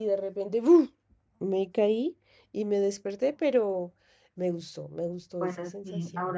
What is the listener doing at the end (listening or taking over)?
taking over